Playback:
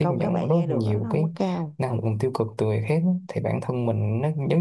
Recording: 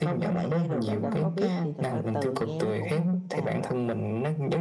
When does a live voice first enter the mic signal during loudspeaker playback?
1 s

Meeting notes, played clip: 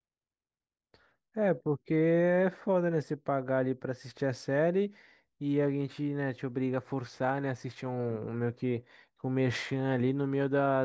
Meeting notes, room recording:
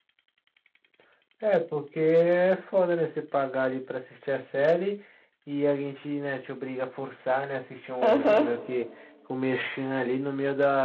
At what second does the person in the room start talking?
8 s

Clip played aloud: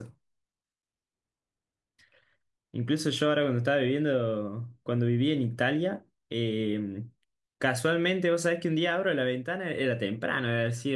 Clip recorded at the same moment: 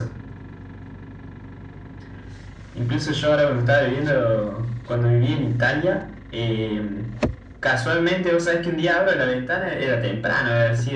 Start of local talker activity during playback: none

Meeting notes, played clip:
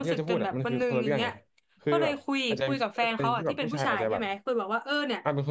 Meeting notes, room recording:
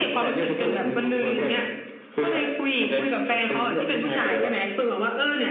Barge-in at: none

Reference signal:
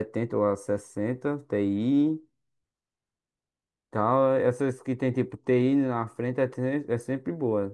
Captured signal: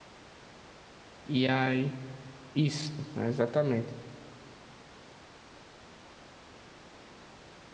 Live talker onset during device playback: 1 s

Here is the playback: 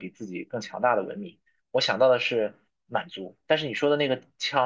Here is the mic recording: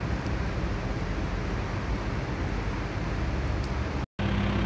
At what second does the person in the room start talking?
none

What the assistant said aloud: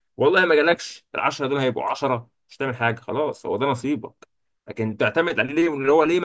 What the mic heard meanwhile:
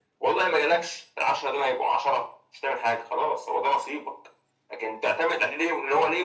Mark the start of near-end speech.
none

